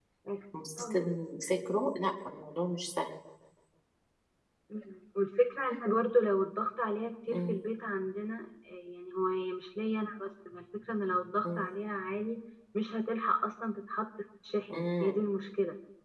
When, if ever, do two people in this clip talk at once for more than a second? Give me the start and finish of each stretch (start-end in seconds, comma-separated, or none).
none